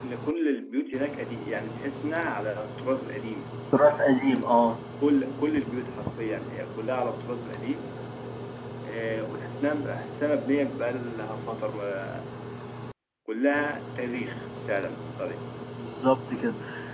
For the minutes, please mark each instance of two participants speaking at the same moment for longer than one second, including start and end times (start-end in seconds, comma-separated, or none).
none